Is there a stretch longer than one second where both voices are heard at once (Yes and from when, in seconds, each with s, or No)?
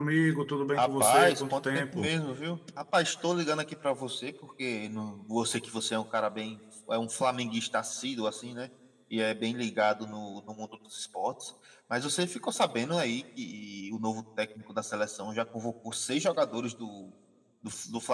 Yes, from 0.8 s